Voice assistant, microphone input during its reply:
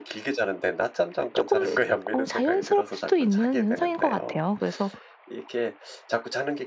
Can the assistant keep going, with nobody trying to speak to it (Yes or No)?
No